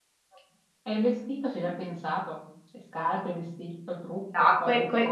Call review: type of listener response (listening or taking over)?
taking over